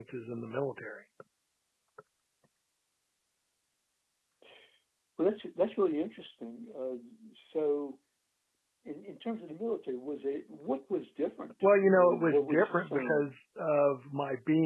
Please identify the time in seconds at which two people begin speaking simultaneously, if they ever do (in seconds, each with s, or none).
11.9 s